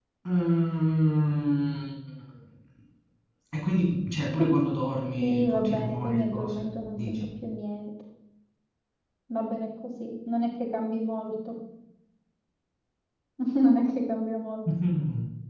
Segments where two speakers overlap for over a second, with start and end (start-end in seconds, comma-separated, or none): 5.2-7.3